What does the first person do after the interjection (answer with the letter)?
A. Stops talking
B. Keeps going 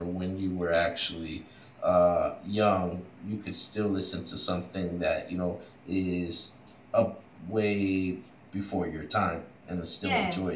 A